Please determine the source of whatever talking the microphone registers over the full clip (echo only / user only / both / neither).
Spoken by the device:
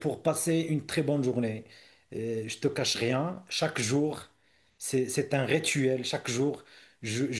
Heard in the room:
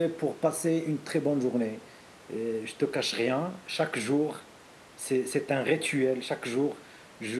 echo only